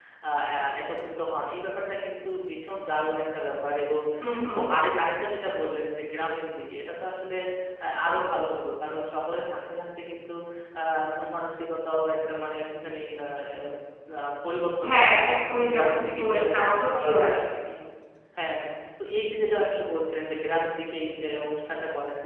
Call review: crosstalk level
present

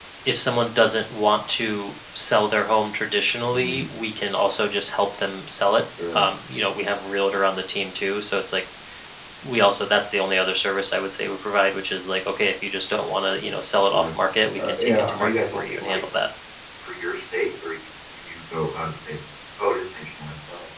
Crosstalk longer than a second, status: present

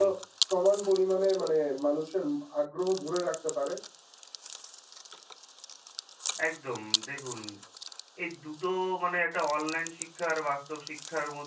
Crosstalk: none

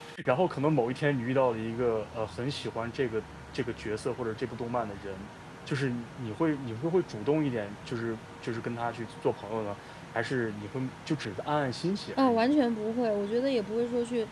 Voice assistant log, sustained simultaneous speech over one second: none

